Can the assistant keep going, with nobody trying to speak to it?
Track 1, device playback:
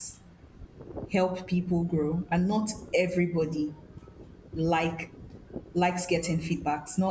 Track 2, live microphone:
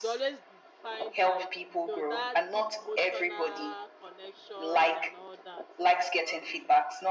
No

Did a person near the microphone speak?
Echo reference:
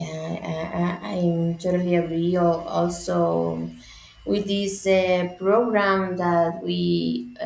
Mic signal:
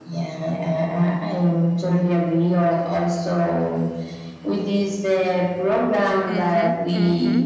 Yes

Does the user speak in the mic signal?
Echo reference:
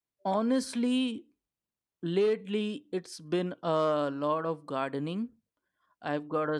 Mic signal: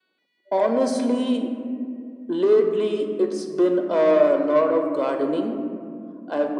No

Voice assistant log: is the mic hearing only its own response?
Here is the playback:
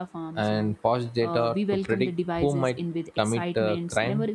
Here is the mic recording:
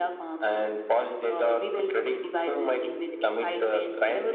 Yes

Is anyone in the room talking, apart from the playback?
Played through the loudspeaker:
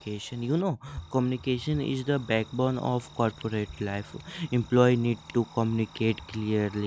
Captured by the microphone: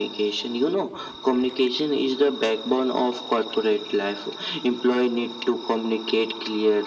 No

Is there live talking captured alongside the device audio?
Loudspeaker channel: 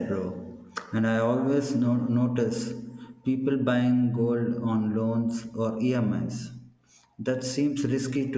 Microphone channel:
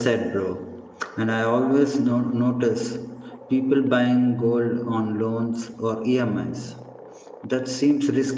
No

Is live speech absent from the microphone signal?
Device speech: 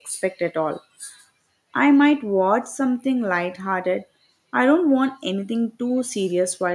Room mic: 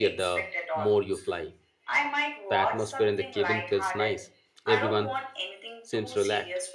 No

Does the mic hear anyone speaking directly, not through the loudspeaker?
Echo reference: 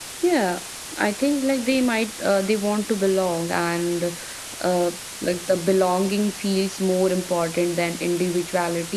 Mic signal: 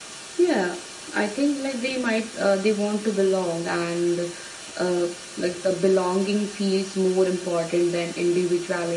No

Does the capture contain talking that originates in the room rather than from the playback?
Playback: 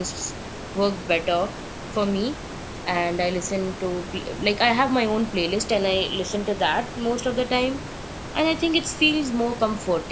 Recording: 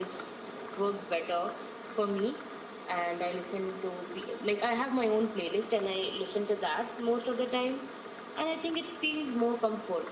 No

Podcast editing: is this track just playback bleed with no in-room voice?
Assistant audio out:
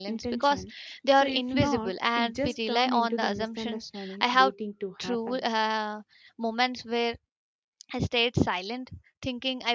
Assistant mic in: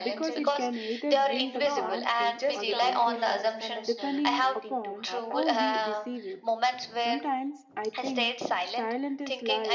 No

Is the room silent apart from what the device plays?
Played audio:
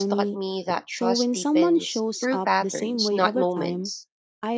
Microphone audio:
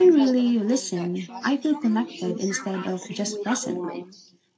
No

